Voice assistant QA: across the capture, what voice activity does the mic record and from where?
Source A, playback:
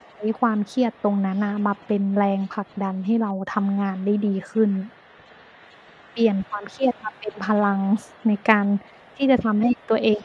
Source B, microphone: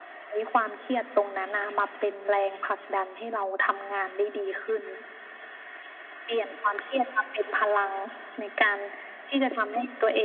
echo only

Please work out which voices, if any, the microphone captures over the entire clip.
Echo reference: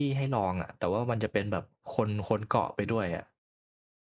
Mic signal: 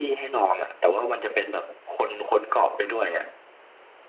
echo only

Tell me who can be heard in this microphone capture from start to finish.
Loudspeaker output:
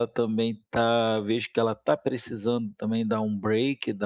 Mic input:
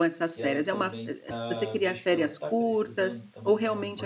both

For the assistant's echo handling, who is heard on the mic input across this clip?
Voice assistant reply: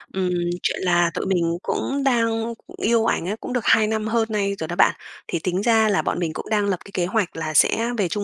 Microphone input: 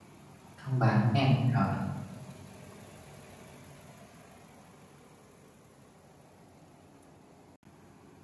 user only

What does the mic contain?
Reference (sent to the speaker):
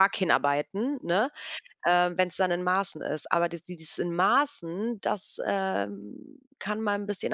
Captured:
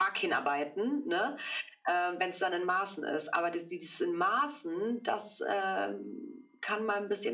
echo only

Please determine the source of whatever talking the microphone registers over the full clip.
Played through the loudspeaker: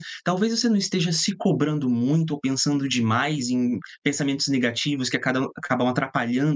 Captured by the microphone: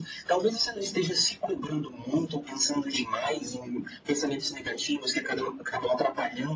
echo only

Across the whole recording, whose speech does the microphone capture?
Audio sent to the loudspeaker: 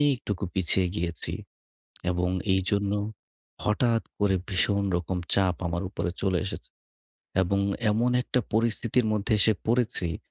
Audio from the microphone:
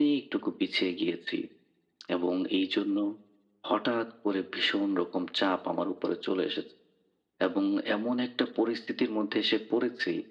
echo only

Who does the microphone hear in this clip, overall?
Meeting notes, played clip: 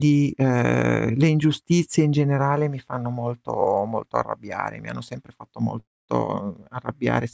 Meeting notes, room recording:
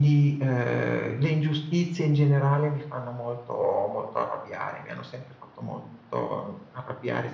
echo only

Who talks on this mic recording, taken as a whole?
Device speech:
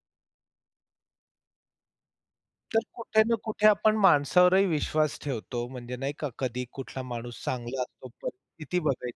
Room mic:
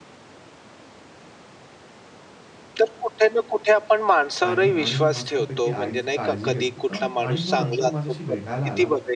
both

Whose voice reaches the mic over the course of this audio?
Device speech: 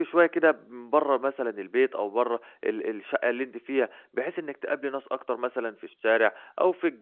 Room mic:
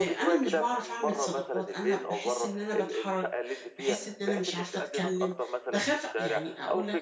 both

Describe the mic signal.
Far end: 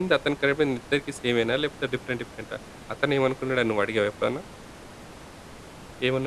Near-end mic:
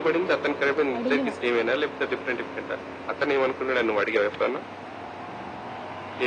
both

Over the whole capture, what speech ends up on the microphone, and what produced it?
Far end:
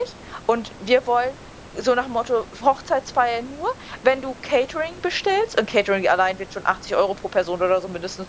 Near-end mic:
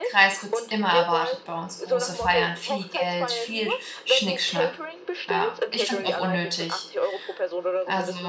both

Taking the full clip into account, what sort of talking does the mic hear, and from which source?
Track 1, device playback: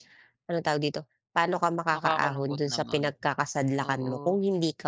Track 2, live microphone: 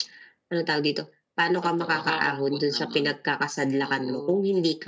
both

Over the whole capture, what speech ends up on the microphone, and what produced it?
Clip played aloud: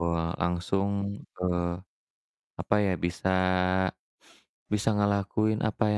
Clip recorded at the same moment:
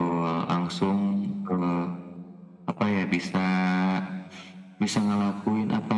echo only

